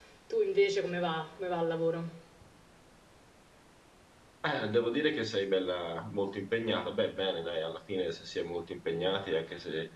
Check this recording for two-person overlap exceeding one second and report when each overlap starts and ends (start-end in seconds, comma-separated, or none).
none